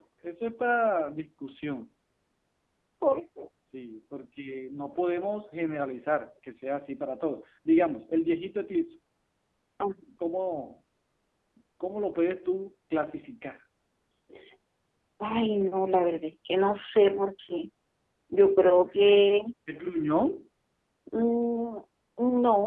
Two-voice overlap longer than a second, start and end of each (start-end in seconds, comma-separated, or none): none